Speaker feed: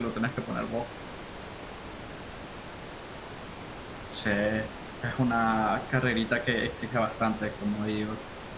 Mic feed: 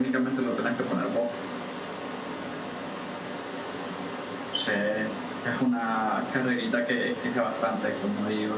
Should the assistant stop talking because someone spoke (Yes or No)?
No